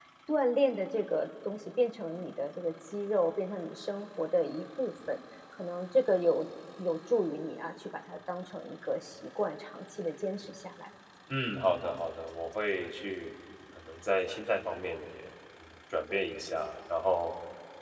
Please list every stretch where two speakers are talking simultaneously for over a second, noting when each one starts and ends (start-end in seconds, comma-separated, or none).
none